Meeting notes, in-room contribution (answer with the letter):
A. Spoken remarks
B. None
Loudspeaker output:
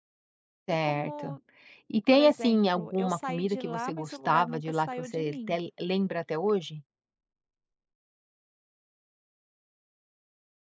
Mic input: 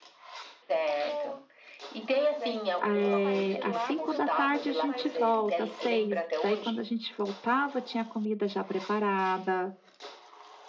A